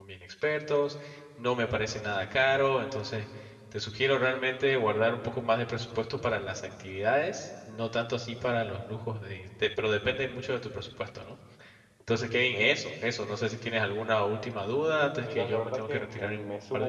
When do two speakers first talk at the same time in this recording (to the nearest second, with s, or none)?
15 s